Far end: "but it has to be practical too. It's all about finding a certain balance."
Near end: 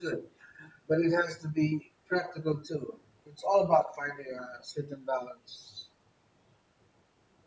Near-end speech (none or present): none